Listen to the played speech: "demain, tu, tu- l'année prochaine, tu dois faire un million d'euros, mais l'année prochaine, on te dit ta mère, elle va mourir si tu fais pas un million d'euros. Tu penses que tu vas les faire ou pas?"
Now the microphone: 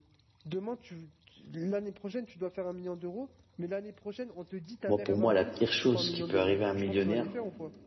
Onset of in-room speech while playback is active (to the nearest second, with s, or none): 5 s